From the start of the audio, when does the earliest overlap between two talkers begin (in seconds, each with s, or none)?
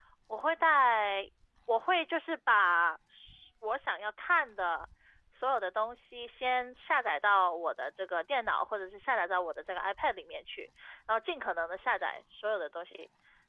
none